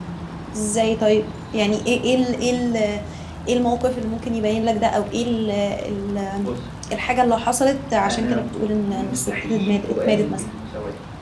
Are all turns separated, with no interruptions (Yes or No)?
No